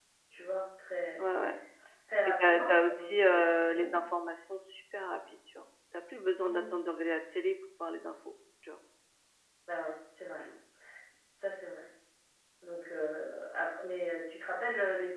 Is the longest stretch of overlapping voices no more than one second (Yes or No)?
No